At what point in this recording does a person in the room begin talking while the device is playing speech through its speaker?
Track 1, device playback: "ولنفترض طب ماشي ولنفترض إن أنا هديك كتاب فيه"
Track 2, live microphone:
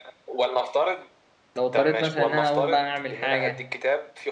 1.5 s

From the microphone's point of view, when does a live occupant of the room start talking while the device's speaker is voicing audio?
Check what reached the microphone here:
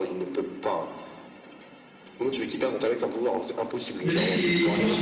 4.0 s

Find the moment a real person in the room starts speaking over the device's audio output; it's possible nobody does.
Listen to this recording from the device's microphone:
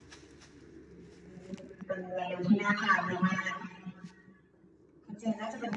none

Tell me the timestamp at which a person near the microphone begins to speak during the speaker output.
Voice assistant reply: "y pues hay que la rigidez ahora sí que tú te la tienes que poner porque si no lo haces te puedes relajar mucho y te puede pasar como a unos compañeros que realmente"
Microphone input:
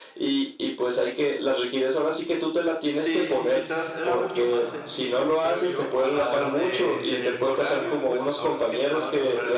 2.9 s

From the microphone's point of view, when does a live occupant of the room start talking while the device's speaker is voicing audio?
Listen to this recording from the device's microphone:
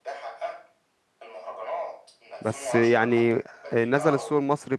2.4 s

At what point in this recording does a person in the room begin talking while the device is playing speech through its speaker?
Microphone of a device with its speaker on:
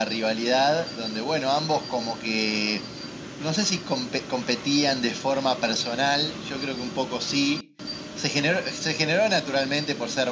none

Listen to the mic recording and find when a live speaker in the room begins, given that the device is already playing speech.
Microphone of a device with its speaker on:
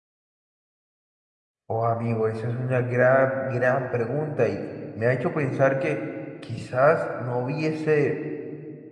1.7 s

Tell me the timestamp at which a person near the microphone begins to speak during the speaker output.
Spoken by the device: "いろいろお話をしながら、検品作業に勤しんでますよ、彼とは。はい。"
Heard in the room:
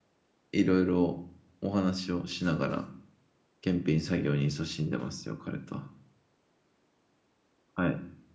none

